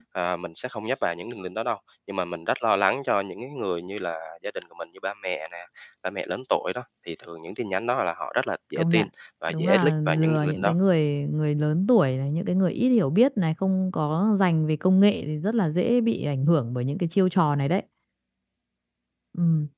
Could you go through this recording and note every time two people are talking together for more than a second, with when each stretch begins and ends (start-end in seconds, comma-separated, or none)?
9.5-10.7